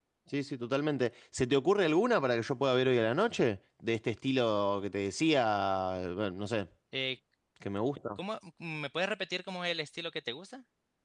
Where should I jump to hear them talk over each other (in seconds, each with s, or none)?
none